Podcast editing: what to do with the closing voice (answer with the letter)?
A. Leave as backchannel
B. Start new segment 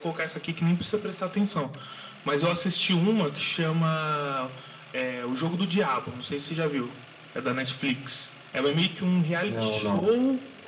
A